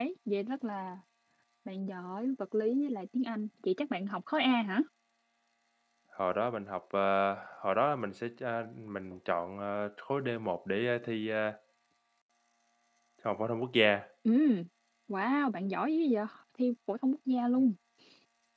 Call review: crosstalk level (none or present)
none